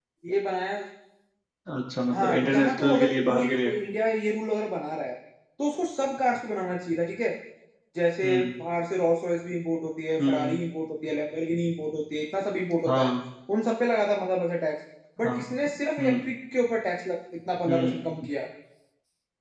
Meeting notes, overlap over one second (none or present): present